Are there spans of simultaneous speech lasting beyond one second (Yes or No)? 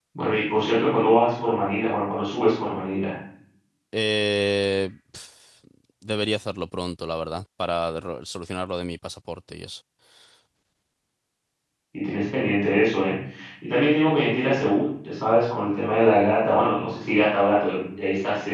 No